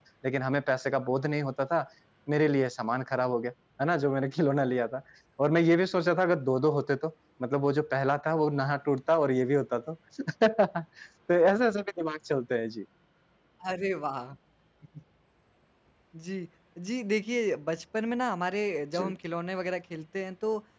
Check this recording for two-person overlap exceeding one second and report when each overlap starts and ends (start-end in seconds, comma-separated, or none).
none